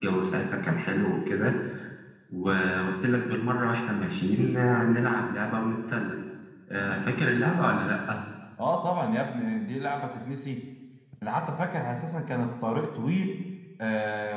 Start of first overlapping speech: none

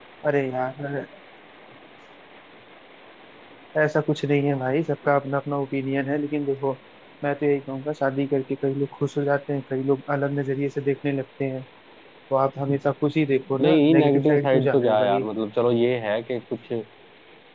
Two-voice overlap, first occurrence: 13.5 s

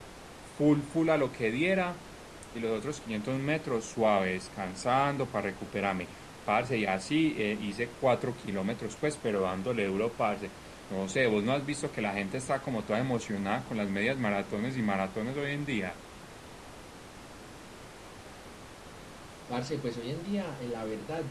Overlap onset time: none

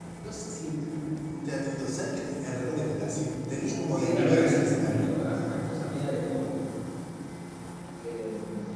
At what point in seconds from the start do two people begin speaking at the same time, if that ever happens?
3.9 s

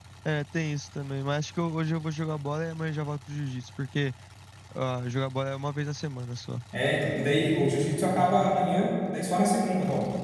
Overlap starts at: none

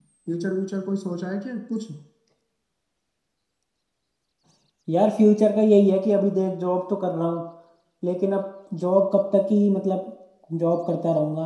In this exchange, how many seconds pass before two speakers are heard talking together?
none

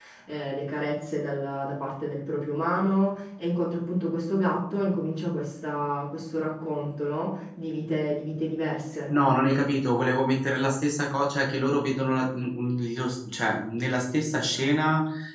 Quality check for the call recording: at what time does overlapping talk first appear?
none

